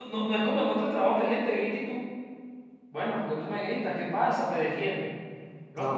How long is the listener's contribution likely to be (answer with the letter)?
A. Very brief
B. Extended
A